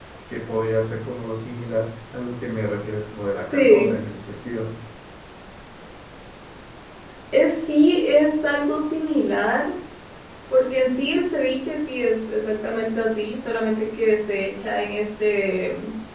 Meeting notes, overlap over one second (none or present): none